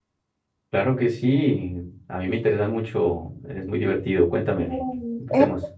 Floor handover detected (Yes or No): Yes